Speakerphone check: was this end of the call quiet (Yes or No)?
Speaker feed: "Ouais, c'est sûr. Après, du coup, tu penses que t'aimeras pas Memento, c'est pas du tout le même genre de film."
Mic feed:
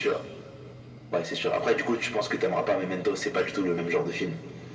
Yes